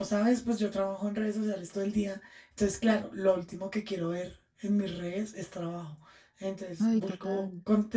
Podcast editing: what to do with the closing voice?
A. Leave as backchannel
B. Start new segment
A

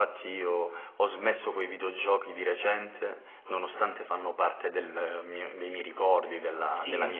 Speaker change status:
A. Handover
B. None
A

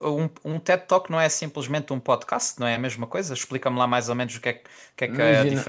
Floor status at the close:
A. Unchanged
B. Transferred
B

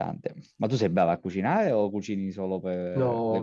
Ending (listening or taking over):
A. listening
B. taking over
B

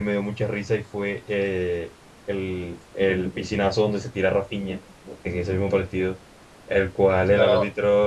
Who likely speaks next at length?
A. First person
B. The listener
A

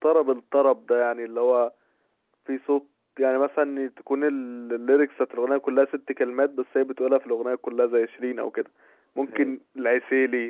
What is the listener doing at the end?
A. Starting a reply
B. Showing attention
B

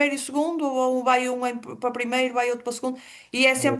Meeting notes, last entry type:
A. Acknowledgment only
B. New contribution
A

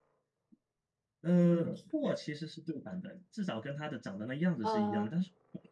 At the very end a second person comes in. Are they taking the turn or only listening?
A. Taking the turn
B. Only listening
B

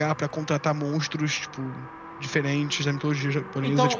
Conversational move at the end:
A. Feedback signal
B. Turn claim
B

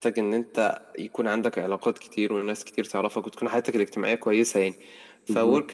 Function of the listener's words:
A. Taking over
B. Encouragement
B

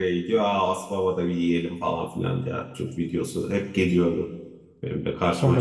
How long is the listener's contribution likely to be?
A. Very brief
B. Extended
B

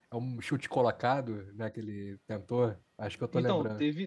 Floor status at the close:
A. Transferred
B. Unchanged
A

